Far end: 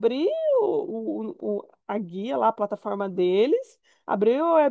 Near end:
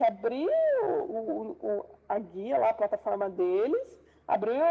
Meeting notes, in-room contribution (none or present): none